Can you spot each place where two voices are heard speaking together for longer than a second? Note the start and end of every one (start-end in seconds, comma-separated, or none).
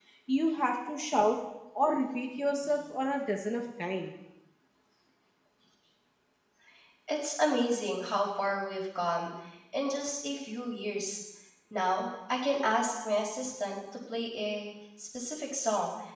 none